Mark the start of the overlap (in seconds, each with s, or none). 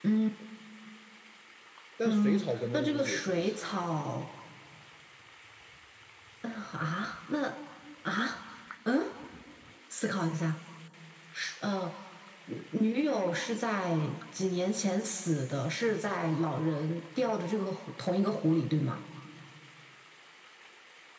2.0 s